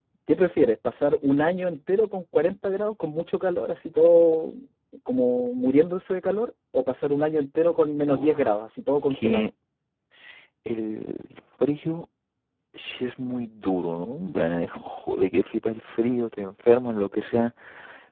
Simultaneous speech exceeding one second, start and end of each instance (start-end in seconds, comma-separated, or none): none